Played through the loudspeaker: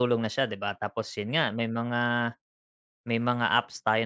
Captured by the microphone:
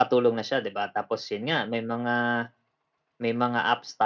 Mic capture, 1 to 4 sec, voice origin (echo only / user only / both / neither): echo only